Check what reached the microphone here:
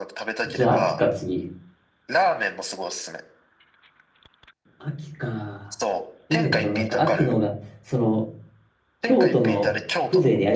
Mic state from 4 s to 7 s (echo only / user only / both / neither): both